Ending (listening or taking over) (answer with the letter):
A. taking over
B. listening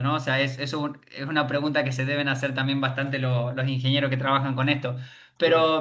B